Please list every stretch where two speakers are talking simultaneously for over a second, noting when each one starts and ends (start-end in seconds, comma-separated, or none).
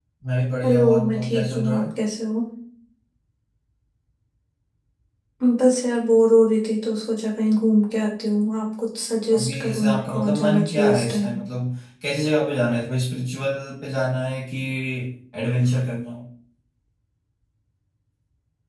0.6-1.8, 9.3-11.3